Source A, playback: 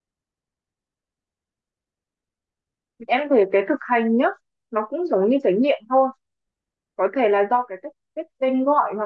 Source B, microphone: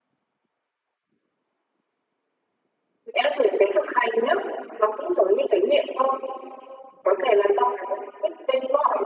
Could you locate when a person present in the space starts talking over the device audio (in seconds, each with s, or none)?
none